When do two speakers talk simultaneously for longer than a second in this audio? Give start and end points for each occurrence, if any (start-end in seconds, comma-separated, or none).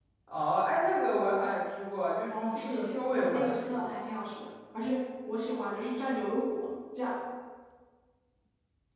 2.3-3.9